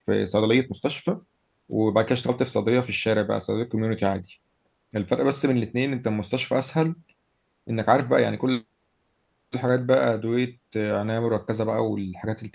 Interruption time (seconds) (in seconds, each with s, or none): none